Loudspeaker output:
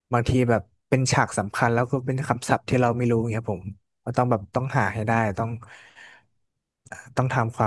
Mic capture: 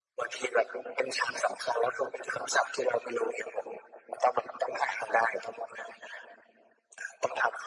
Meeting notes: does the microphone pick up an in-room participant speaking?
No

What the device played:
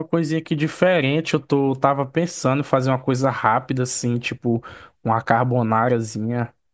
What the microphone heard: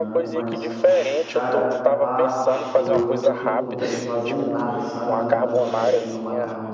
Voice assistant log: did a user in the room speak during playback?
Yes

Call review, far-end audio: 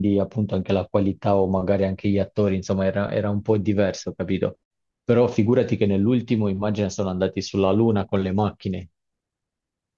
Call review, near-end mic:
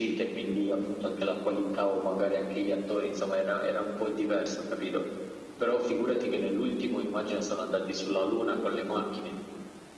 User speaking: No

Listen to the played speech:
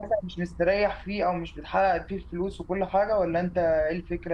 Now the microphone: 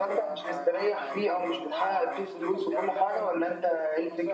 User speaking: Yes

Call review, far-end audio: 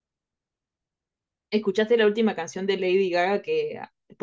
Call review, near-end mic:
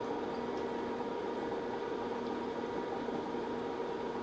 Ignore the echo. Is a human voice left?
No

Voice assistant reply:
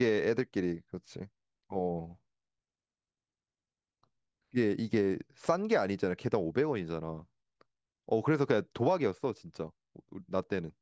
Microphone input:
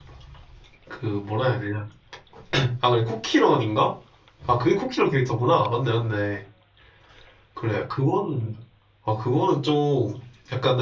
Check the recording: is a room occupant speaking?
Yes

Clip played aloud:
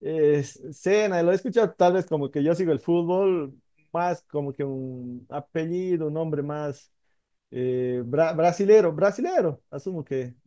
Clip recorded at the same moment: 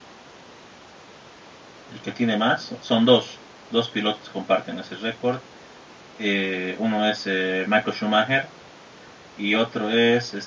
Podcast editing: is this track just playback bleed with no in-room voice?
No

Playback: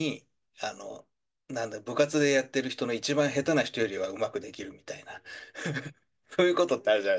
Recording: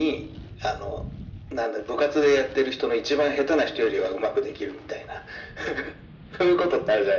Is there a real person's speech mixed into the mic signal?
No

